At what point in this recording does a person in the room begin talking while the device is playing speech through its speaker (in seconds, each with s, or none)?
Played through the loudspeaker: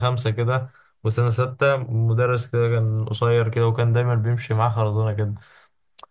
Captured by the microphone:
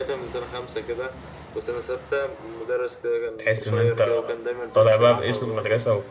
3.4 s